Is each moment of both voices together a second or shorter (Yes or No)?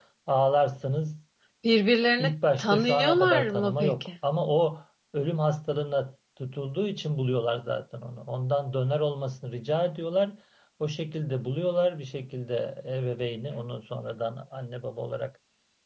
No